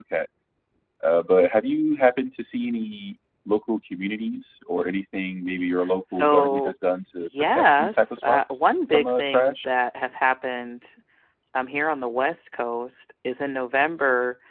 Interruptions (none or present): present